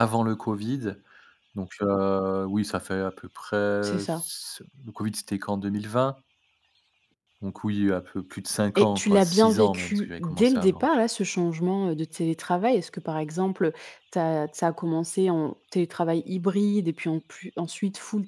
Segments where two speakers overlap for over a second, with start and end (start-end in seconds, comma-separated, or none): 8.8-10.8